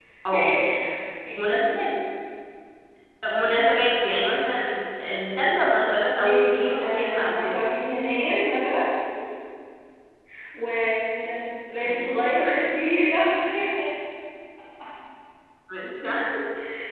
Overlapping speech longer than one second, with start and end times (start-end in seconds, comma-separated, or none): 6.2-7.6